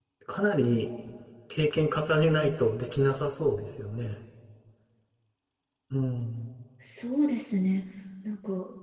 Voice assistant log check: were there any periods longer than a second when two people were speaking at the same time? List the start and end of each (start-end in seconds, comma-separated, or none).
none